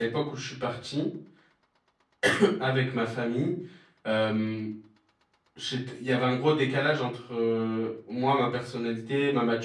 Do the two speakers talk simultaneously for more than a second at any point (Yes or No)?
No